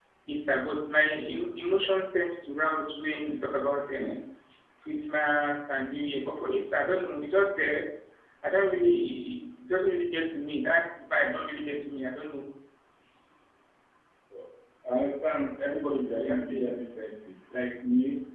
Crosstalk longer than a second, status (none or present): none